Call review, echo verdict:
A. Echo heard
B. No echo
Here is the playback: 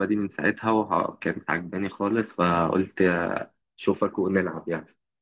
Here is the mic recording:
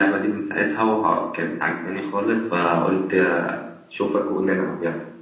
A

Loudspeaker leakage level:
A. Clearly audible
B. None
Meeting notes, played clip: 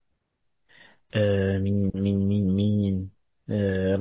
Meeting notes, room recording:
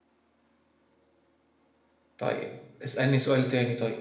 B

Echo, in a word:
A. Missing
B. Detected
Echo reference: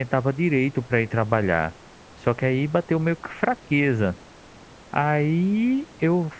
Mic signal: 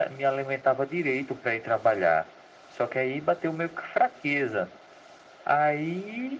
B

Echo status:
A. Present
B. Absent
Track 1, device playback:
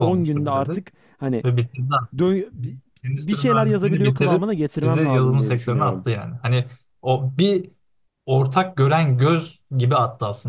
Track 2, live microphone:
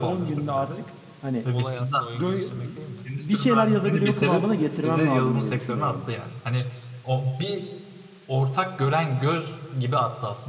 A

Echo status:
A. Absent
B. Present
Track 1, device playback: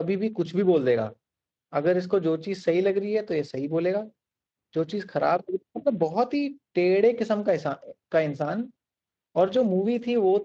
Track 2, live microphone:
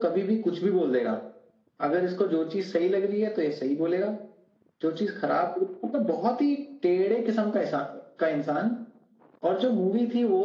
B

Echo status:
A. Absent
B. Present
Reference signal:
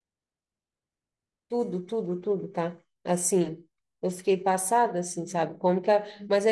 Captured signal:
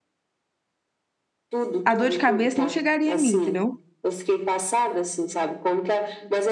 B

